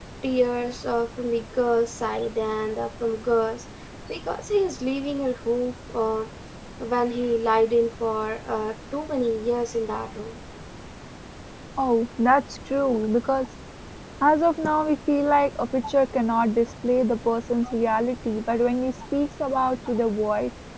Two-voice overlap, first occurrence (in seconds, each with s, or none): none